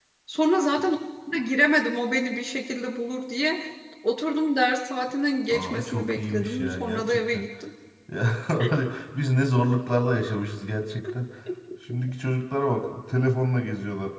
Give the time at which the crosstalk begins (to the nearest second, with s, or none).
6 s